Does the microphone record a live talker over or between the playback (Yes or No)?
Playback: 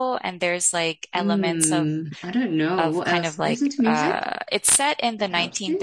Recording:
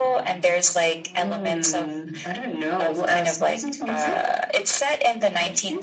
No